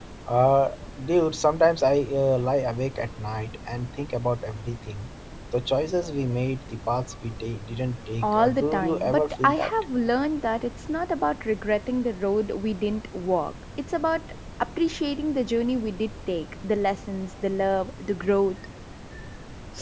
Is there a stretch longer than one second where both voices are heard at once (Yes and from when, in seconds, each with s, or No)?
Yes, from 8.2 s